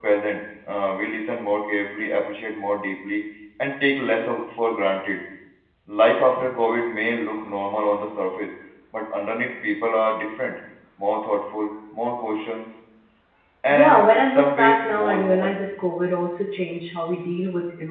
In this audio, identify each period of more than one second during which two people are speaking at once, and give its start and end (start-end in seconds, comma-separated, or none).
13.7-15.6